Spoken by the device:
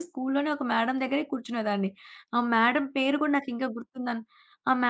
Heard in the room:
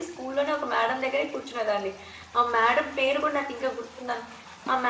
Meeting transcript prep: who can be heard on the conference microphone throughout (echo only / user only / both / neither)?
echo only